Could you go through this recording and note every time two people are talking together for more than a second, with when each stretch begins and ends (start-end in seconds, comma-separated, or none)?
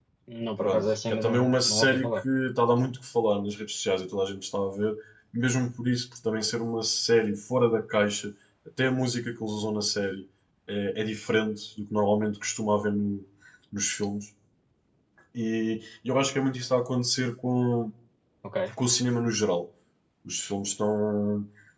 0.6-2.2